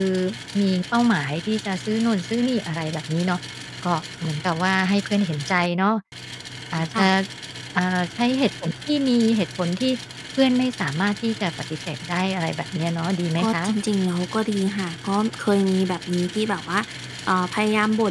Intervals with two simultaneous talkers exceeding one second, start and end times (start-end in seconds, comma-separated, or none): none